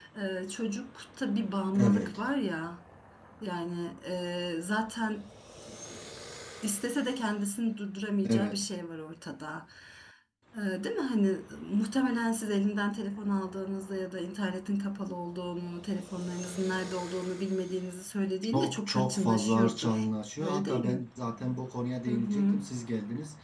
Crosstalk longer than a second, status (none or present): present